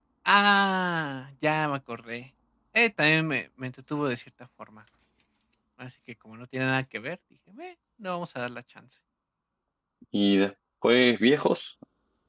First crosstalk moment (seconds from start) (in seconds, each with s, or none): none